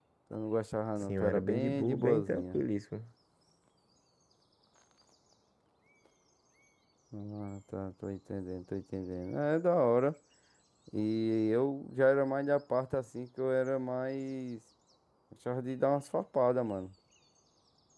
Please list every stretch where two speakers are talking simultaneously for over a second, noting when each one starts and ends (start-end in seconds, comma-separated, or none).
1.0-2.6